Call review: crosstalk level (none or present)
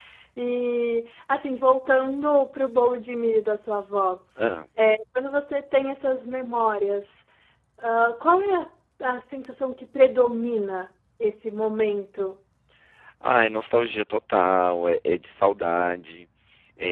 none